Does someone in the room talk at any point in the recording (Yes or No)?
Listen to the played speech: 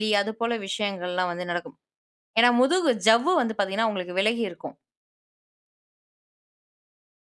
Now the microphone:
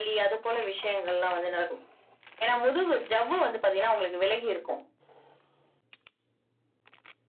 No